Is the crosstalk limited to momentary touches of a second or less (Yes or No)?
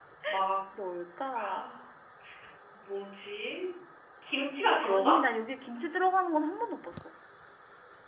Yes